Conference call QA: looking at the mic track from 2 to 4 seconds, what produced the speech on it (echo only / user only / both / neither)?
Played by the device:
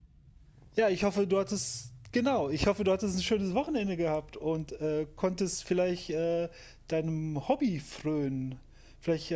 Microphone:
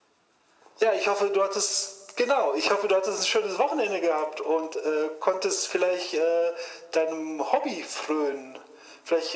echo only